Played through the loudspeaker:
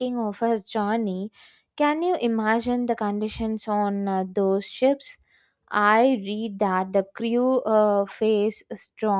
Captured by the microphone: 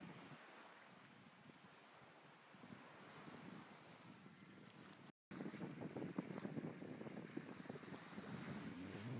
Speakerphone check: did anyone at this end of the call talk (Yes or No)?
No